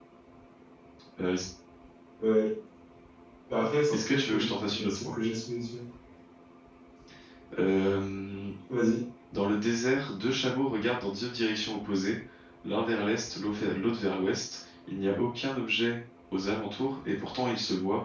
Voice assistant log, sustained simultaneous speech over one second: present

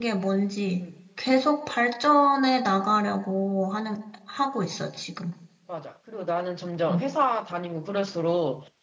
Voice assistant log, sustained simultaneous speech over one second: none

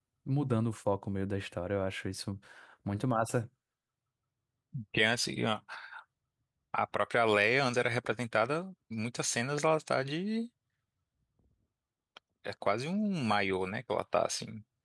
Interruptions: none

